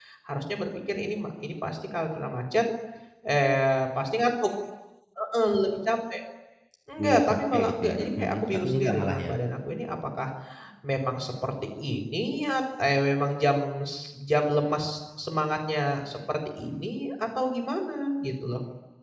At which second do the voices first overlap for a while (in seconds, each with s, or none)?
7.3 s